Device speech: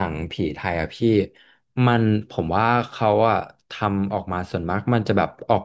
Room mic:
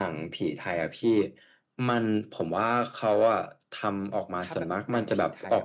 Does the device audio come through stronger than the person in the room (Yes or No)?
Yes